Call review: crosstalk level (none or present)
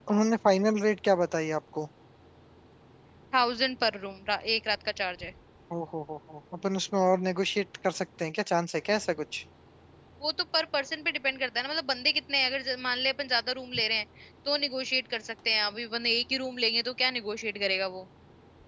none